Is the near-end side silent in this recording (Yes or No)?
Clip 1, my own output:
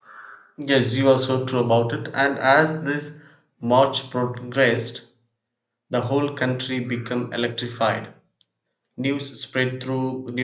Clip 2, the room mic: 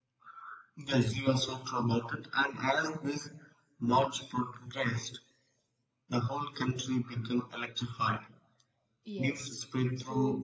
No